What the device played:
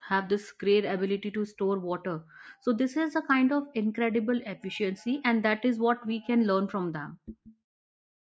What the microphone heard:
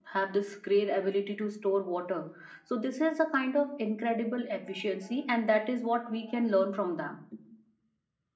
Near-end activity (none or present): none